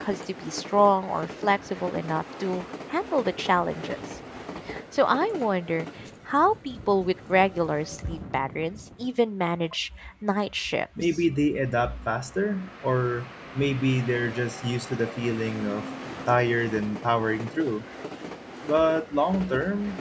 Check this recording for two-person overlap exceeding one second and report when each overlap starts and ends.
none

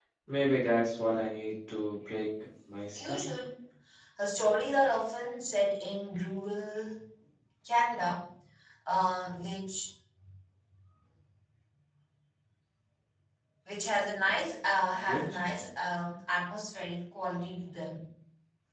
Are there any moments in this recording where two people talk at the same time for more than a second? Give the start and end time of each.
none

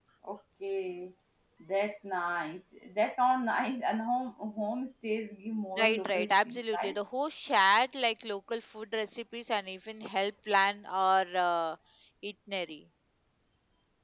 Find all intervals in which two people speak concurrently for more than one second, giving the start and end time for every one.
5.8-7.0

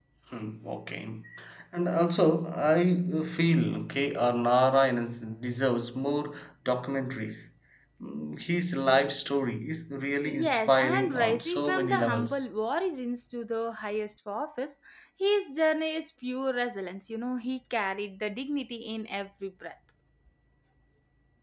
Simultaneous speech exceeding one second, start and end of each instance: 10.3-12.4

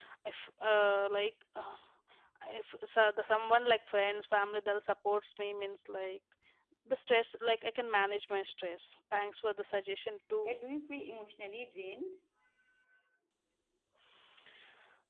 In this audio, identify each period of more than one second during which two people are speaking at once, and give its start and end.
none

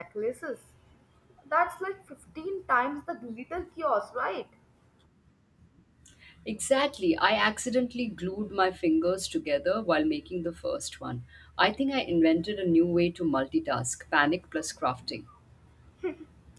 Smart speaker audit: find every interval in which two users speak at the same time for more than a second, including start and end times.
none

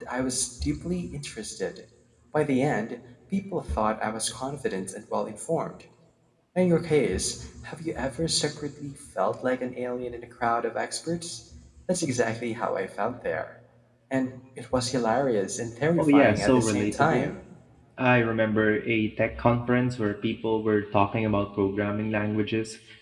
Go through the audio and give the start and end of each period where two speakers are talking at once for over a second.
16.0-17.3

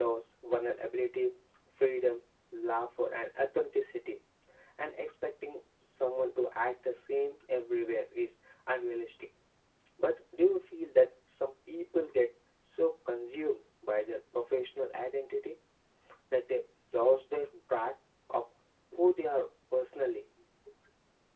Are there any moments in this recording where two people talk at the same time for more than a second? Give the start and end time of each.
none

